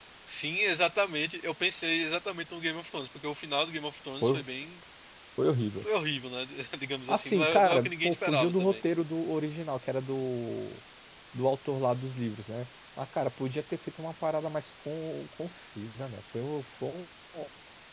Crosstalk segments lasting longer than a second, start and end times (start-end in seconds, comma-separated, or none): 7.1-8.8